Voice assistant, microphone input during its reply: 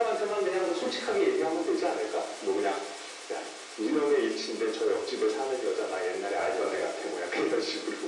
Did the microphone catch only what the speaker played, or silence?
Yes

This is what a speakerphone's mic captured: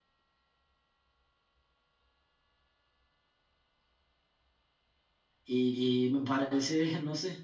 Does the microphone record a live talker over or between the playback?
Yes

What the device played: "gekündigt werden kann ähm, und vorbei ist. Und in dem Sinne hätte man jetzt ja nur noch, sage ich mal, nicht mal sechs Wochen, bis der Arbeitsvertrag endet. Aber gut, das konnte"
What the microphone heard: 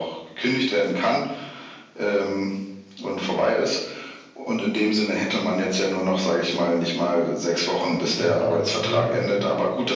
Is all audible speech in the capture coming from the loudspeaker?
No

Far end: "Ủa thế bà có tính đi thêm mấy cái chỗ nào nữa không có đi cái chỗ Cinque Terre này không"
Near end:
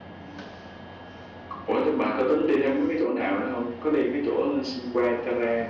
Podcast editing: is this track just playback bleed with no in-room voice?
Yes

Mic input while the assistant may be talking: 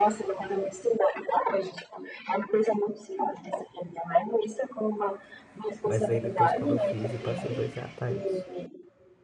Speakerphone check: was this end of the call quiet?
No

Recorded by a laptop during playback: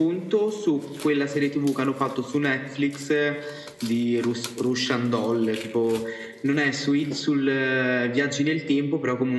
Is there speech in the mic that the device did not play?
No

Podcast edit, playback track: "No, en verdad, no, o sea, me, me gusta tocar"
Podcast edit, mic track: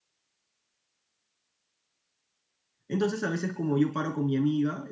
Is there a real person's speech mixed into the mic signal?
Yes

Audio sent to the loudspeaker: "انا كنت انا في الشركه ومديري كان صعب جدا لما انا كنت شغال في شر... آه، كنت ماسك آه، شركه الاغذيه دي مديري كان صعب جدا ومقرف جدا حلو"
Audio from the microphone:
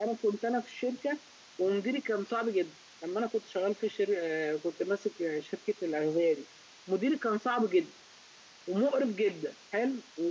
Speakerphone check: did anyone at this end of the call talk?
No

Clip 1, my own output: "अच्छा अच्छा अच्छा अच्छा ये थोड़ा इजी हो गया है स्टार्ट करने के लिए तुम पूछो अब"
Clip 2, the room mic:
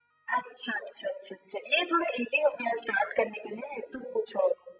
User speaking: No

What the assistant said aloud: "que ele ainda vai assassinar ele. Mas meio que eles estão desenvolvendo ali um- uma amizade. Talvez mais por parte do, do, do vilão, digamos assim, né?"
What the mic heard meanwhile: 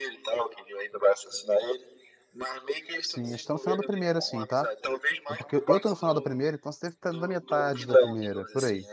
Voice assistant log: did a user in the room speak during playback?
Yes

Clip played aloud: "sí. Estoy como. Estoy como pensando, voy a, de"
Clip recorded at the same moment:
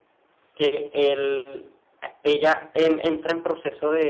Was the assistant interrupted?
Yes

